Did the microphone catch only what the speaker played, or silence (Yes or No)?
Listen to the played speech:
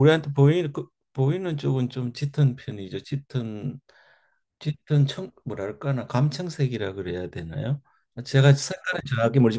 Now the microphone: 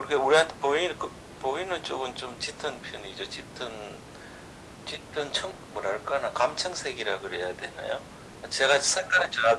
Yes